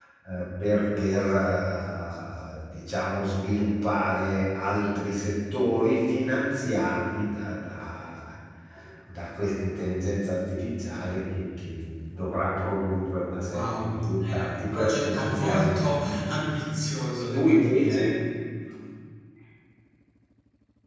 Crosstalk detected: Yes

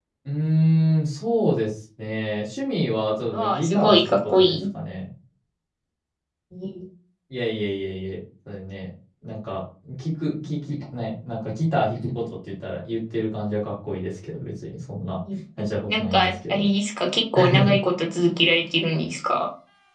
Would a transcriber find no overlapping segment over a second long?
No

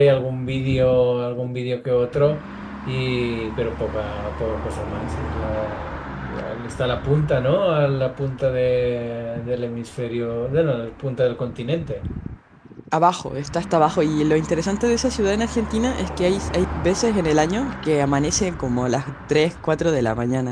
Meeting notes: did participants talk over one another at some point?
No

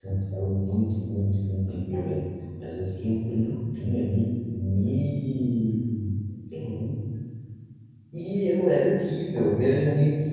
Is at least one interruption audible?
No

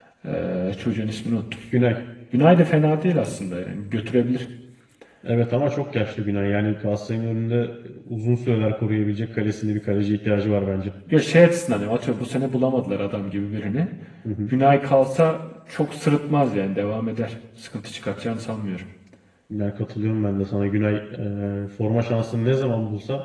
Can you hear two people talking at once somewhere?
No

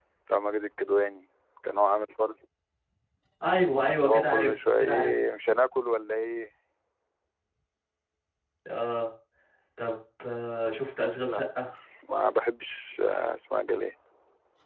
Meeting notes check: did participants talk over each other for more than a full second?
Yes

